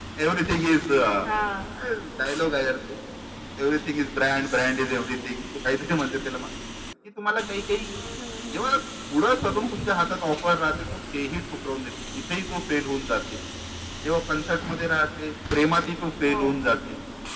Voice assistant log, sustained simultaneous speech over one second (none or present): none